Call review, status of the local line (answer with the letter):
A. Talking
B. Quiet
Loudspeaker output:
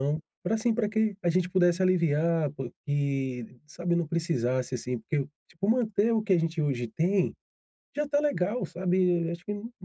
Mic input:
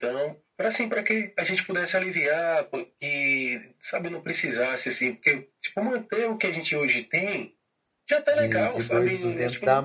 A